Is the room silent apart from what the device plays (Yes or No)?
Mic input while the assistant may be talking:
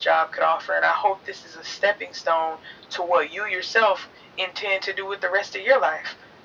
Yes